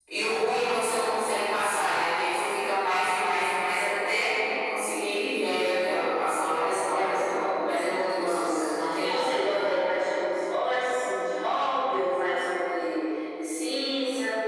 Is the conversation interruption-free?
No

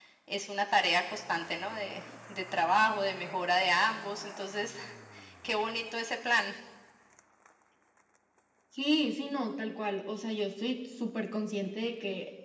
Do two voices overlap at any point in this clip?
No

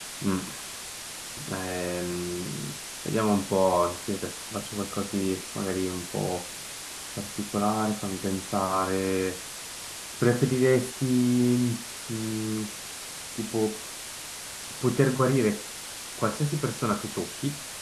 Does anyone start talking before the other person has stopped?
No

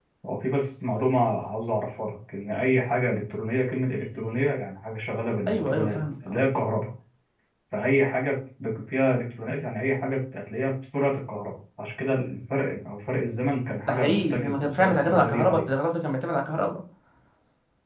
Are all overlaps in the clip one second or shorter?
No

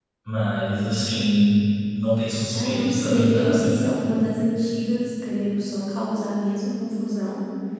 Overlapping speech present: Yes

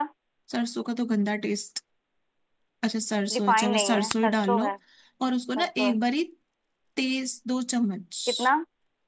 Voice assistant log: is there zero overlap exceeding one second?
No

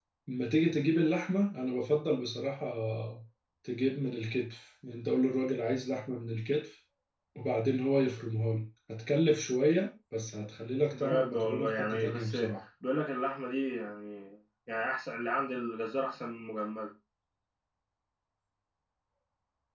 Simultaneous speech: Yes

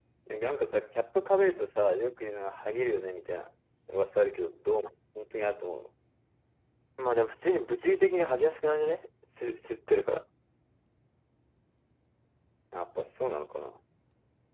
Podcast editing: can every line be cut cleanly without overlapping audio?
Yes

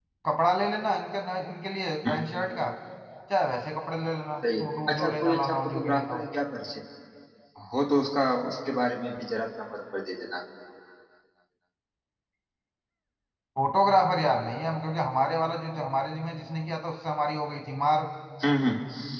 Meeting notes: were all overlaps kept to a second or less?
No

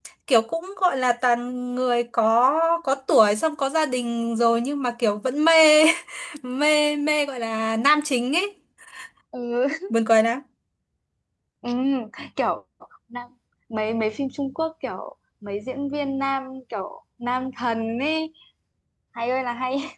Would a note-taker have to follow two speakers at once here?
No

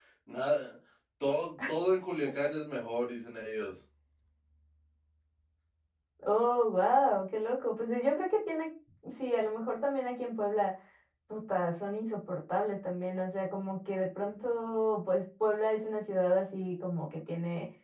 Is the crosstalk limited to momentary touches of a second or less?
Yes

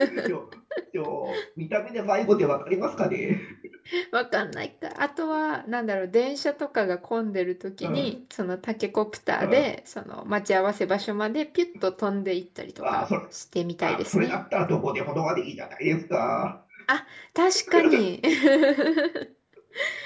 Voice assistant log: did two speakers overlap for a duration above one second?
No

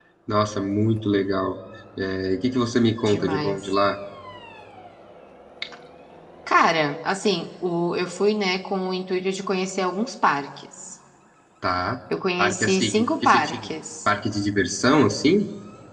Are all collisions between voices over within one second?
No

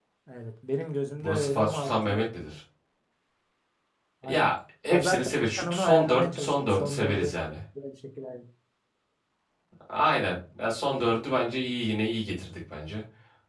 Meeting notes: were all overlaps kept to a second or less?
No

